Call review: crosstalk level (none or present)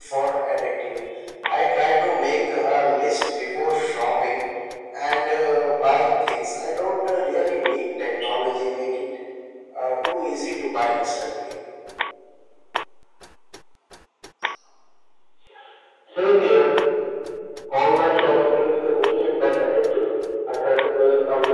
none